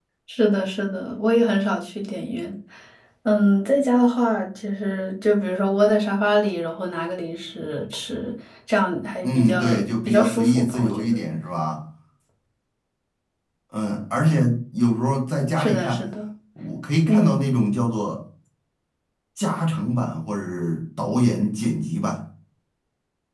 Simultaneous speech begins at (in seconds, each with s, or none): 9.2 s